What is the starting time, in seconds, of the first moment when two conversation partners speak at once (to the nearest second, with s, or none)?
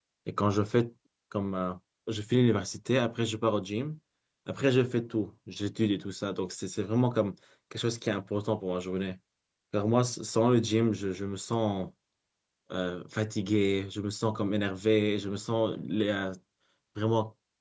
none